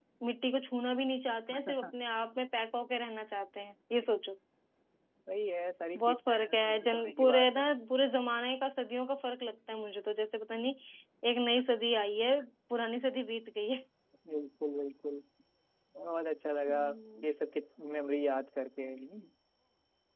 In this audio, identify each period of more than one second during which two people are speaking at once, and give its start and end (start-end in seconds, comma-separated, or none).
6.0-7.6